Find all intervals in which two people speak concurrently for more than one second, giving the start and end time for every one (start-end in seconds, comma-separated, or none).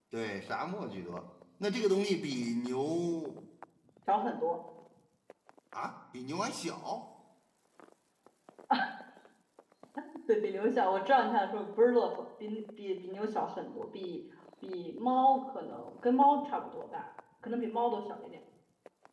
none